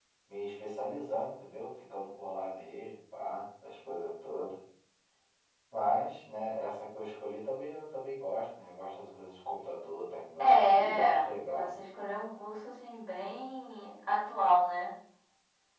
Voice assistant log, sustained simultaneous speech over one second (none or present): present